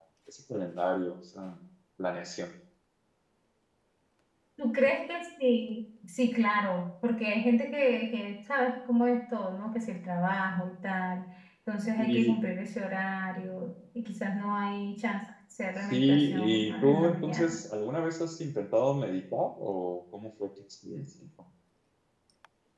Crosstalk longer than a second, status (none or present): present